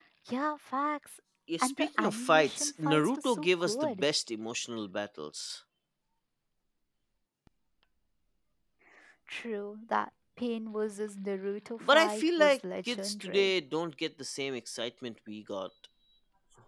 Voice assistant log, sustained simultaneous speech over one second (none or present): present